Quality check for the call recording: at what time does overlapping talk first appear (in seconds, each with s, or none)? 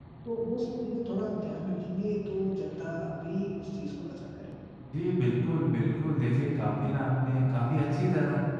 none